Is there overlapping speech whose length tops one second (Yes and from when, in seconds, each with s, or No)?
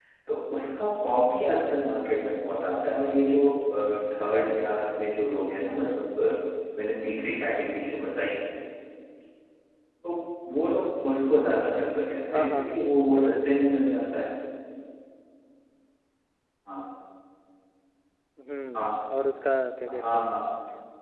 Yes, from 12.3 s